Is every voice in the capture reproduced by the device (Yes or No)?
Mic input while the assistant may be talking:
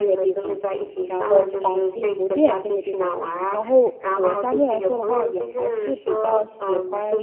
No